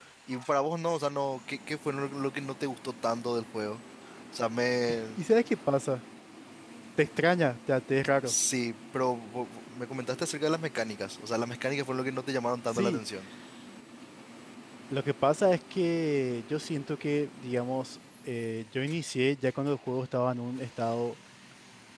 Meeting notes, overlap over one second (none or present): none